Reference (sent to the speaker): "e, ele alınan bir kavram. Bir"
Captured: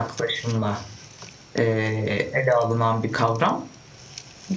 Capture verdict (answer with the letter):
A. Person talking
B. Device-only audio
B